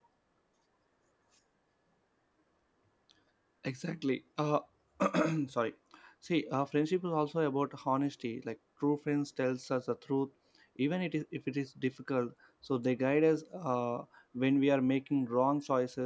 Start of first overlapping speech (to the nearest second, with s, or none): none